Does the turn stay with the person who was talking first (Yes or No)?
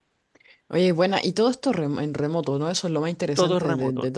No